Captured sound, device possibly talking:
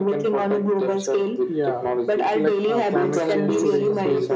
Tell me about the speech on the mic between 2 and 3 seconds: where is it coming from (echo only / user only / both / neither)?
both